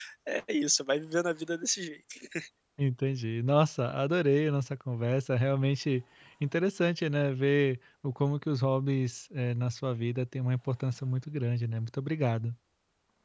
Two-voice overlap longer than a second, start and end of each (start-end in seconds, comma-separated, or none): none